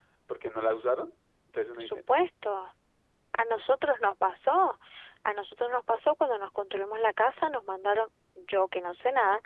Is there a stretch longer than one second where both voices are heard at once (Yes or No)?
No